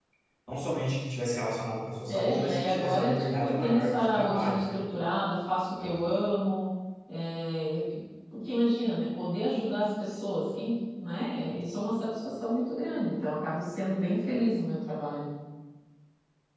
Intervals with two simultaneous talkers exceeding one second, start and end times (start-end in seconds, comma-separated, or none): 2.1-4.8